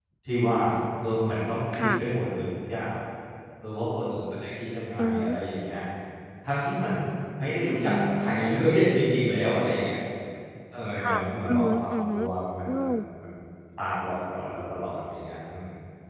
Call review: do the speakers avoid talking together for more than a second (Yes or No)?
No